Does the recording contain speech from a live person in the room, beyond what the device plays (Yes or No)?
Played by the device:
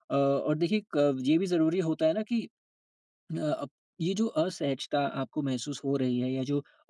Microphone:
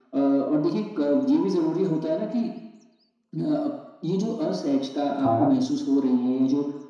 Yes